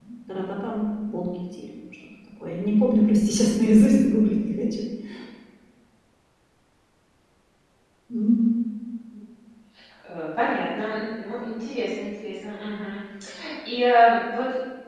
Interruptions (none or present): none